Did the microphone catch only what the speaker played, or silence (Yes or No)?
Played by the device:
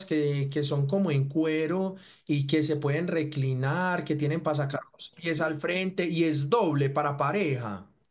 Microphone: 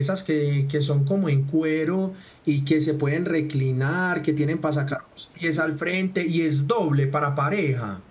Yes